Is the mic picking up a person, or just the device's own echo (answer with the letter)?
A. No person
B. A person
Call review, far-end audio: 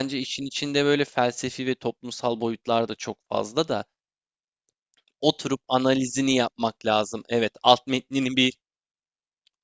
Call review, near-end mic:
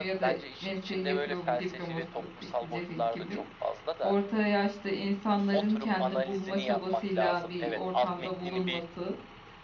B